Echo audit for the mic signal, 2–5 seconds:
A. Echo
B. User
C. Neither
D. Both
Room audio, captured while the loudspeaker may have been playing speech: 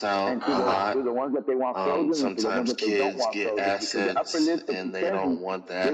A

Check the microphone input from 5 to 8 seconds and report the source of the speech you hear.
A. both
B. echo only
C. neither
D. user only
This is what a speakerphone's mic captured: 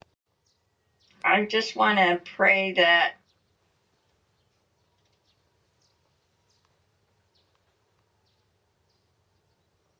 C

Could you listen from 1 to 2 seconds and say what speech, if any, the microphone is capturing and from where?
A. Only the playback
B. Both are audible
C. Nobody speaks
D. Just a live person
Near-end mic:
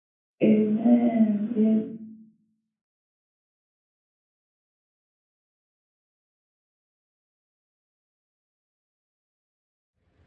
D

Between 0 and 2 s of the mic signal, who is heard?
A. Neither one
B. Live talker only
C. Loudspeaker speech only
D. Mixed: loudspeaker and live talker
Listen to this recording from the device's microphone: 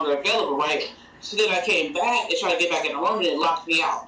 C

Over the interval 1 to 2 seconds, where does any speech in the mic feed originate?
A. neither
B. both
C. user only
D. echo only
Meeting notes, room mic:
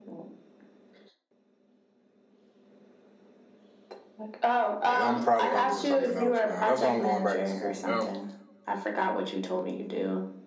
A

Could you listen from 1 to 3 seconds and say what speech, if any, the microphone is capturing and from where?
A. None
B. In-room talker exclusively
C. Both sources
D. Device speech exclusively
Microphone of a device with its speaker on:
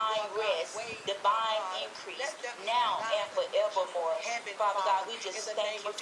D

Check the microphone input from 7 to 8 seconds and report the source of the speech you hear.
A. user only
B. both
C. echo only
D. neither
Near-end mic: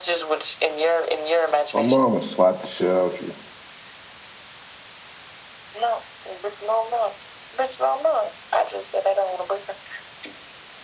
C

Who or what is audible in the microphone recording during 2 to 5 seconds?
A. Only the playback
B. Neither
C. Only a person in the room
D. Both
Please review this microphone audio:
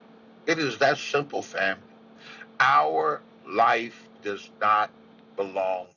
A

